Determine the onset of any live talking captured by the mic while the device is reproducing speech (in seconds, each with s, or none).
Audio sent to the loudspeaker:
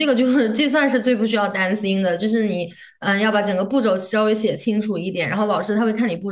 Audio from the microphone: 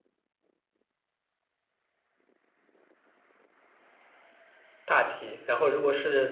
4.8 s